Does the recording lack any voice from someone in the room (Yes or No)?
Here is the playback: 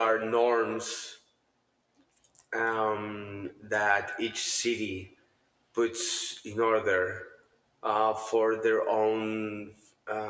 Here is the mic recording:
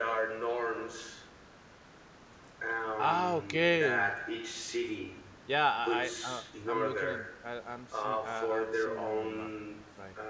No